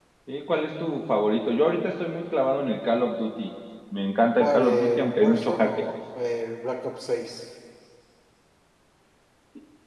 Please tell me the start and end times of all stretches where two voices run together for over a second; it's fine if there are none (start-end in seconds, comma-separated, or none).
4.4-5.9